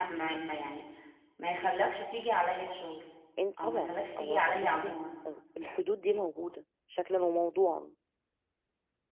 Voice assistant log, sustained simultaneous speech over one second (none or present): present